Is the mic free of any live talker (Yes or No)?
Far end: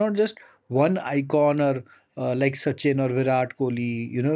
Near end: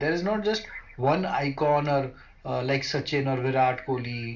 Yes